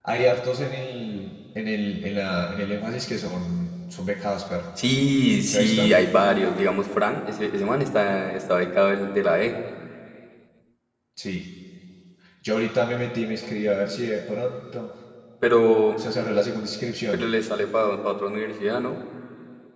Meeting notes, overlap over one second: none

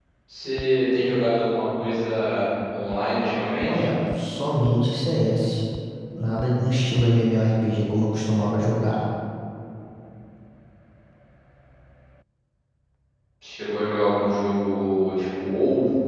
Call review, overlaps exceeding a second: none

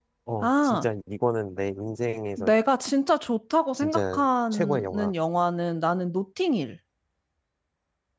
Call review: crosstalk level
present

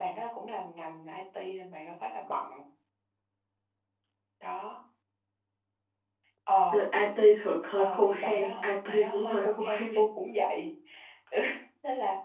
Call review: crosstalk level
present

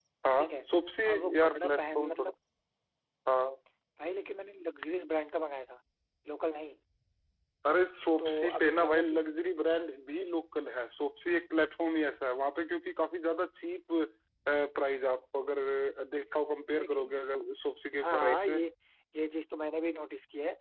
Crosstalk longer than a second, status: present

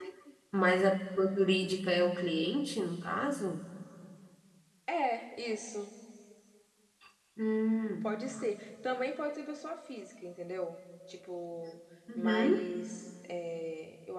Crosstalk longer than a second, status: none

